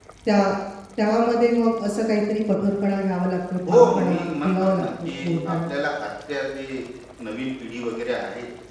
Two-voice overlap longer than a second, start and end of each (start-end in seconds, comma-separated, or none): 3.7-5.7